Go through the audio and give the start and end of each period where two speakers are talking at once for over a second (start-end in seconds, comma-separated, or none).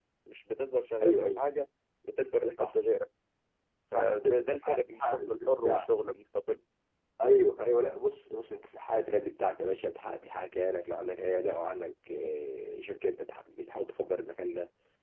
3.9-5.8